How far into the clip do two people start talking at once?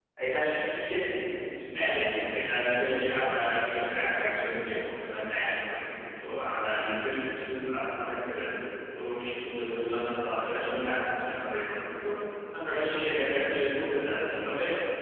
1.7 s

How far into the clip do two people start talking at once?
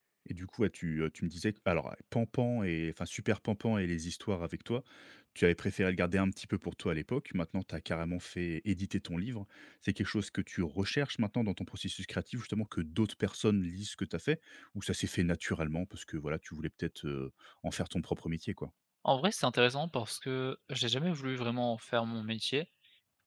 none

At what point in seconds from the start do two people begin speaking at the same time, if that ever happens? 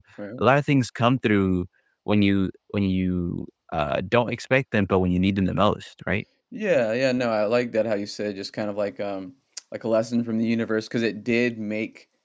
none

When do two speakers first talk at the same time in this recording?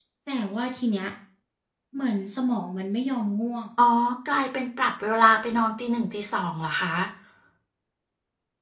none

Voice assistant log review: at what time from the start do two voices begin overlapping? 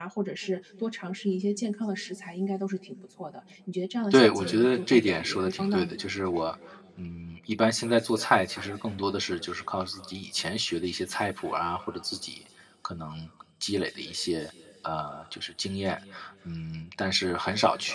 4.1 s

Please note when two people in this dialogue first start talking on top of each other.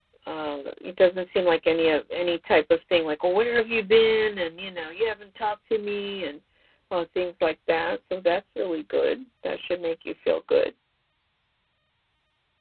none

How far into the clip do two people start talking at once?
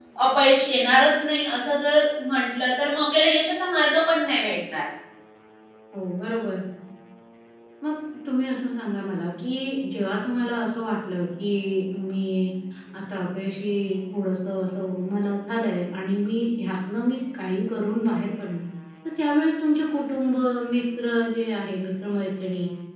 none

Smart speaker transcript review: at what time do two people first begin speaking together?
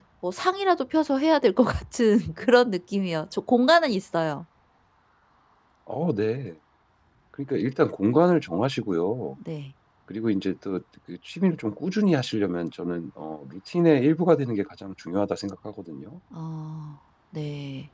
none

